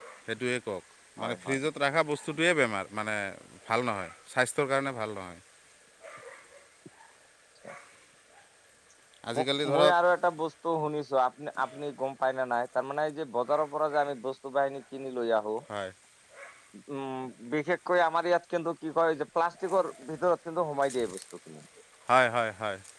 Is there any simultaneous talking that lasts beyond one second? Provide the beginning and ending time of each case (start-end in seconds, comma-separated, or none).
none